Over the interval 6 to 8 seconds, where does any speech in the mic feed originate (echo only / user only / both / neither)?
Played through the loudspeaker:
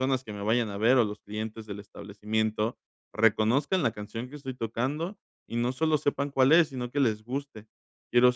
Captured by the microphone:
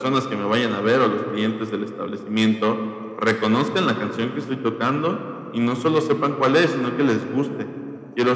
echo only